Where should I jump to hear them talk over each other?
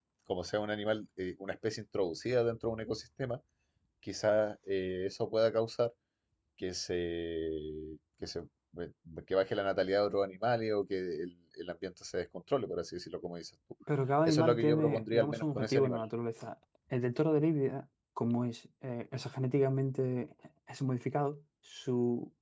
14.2 s

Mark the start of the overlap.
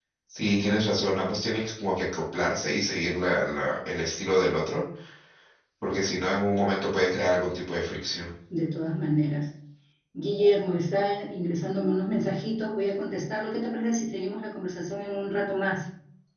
none

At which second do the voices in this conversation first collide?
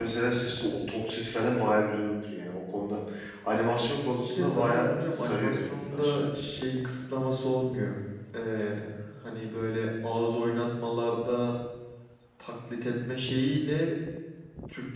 4.2 s

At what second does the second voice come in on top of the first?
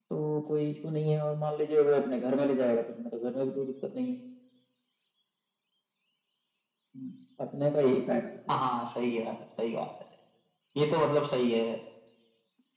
none

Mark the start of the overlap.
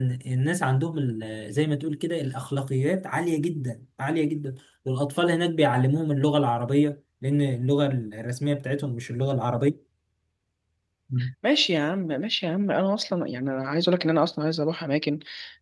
none

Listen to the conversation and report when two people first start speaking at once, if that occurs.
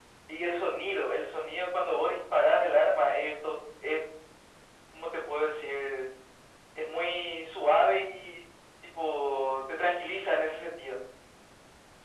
none

